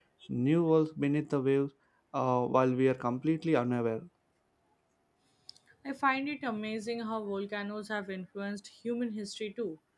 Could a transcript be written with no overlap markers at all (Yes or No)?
Yes